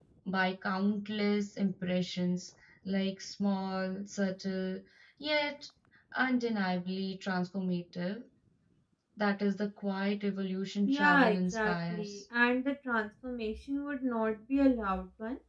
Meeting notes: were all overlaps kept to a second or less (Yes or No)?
No